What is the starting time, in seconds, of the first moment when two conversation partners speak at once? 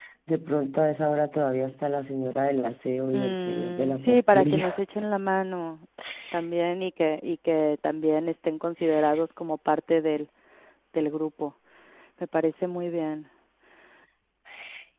3.1 s

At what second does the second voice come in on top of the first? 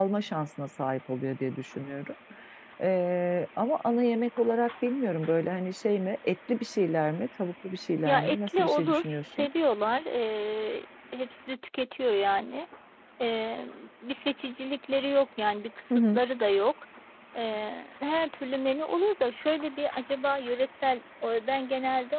8.1 s

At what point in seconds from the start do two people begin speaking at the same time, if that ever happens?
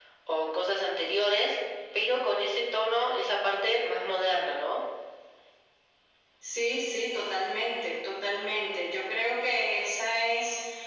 none

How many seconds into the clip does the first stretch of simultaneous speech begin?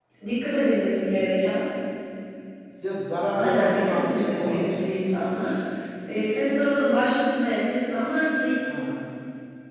3.3 s

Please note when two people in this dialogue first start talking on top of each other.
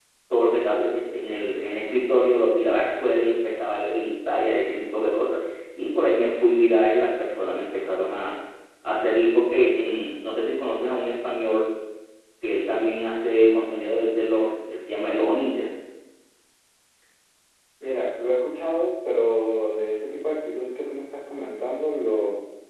none

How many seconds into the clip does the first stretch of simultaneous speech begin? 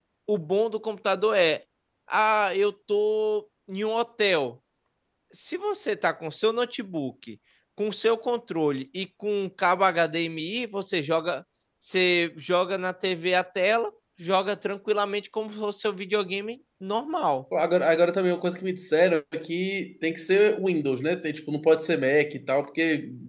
none

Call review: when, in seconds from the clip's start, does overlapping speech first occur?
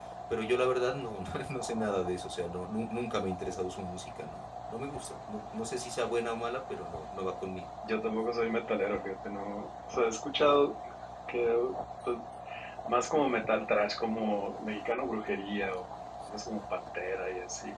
none

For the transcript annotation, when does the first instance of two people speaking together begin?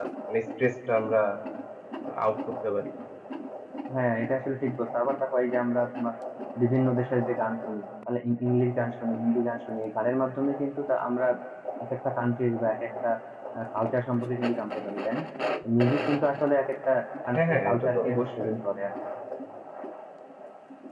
17.3 s

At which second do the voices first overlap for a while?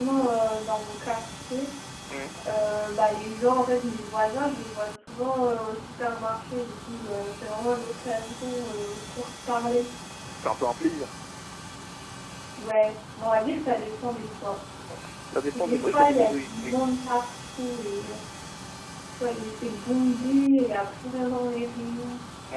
15.5 s

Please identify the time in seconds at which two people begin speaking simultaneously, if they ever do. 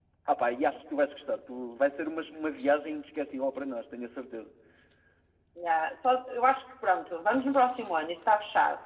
none

